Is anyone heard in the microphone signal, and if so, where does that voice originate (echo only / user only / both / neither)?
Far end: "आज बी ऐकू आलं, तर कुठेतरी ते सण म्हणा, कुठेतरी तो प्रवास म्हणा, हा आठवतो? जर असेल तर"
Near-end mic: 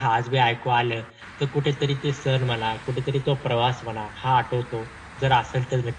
echo only